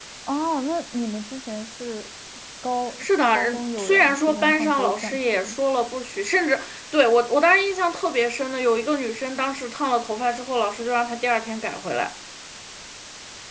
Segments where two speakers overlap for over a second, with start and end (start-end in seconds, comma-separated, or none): 3.0-5.6